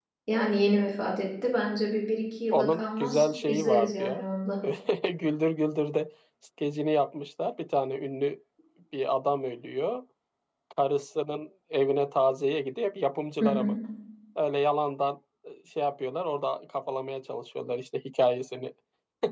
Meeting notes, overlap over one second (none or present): present